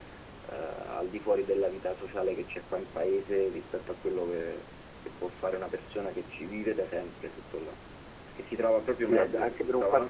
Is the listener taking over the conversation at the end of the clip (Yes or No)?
Yes